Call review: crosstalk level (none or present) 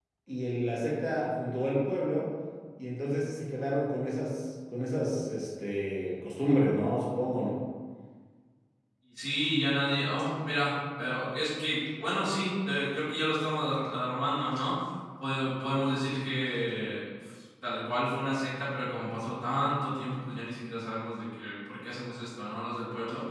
none